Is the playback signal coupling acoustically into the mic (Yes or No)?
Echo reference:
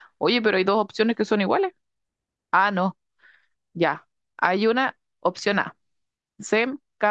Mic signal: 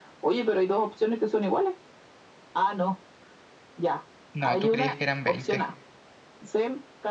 Yes